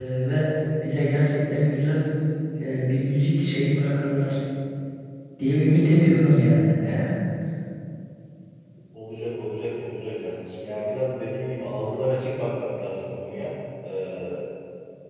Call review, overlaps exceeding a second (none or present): none